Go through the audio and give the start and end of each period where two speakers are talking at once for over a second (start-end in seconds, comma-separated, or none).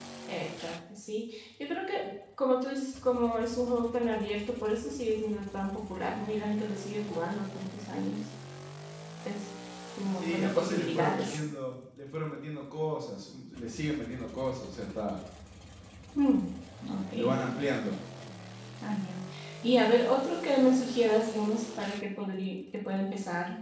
10.2-11.4